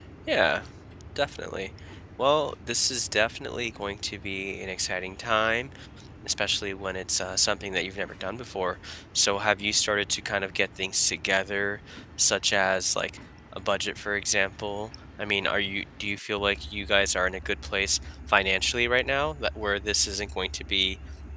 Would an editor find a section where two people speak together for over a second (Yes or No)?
No